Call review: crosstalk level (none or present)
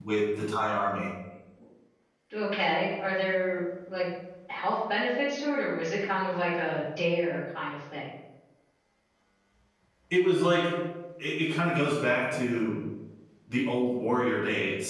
none